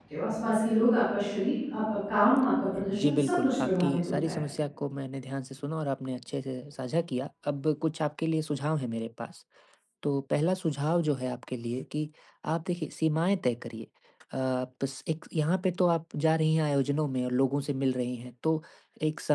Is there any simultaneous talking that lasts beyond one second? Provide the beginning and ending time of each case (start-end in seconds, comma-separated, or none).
2.8-4.4